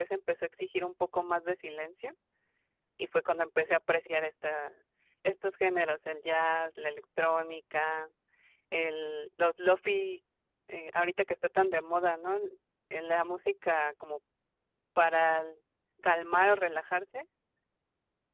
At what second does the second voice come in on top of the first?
none

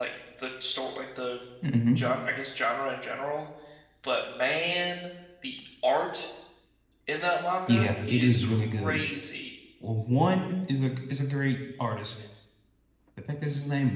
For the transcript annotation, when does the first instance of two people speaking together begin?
7.7 s

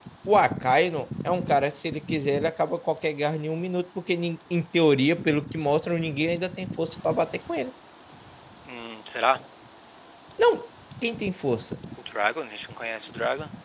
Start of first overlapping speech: none

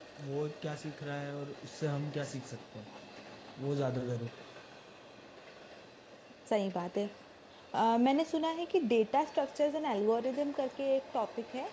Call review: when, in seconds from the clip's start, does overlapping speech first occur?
none

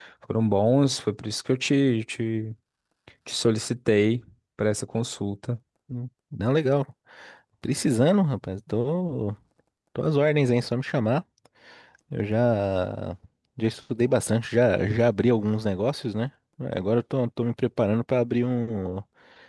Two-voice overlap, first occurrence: none

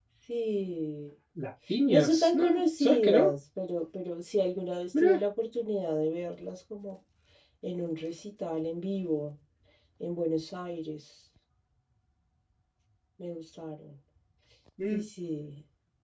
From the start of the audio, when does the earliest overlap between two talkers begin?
1.9 s

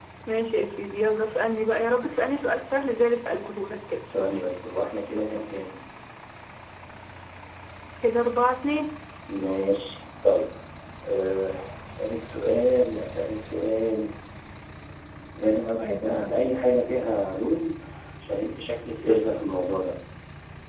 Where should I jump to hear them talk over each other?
none

